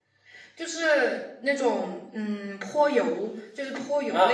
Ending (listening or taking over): taking over